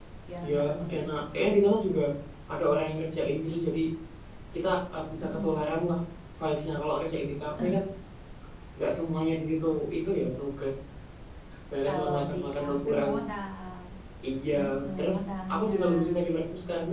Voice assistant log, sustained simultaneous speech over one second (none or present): present